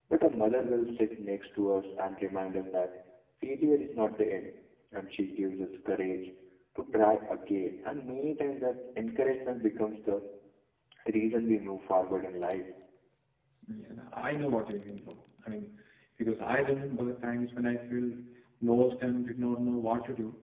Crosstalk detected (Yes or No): No